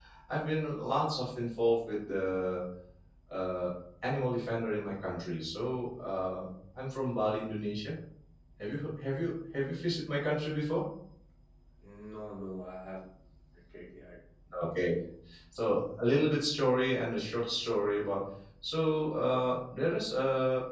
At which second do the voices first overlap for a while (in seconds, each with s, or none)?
none